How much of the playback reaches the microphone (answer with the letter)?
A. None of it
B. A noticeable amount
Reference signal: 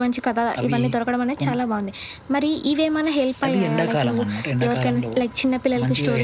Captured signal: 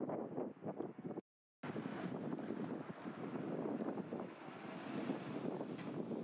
A